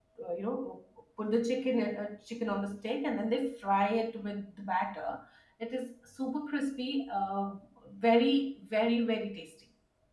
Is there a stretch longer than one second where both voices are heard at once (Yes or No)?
No